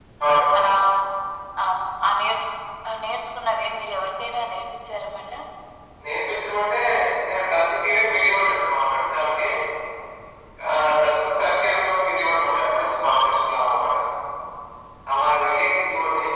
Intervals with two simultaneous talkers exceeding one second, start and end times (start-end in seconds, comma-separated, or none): none